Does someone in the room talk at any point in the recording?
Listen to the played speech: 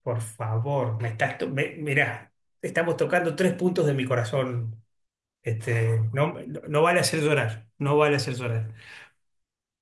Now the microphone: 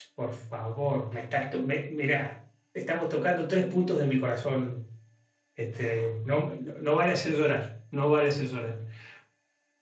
No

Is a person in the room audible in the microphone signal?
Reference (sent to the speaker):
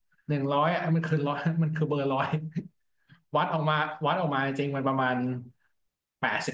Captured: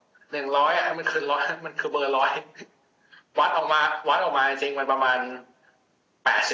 No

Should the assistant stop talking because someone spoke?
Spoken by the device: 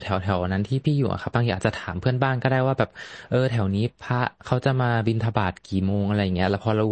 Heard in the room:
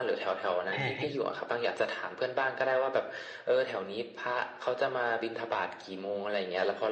Yes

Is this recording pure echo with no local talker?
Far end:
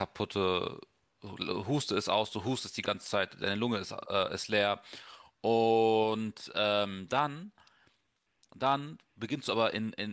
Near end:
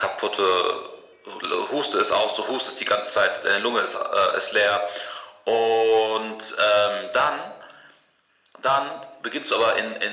Yes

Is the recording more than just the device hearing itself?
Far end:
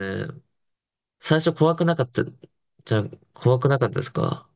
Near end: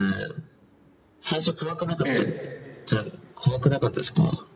Yes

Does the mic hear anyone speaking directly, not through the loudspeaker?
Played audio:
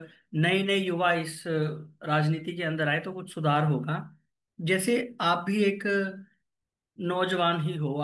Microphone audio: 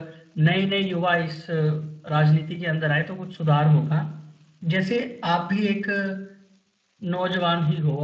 No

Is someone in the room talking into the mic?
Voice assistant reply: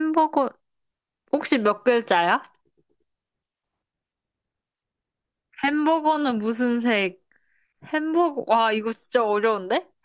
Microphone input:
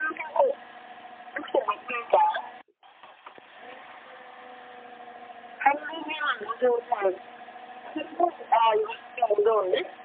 No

